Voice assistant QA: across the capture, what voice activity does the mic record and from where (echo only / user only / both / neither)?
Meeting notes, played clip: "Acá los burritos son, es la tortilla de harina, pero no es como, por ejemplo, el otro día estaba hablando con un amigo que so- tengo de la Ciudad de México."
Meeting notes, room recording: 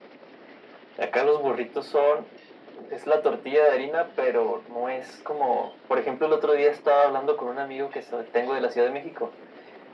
echo only